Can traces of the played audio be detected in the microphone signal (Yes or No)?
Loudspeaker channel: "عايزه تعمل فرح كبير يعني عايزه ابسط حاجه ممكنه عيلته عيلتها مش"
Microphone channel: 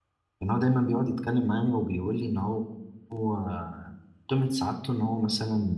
No